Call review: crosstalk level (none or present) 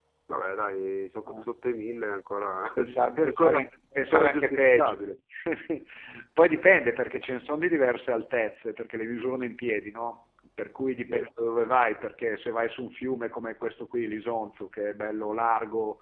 present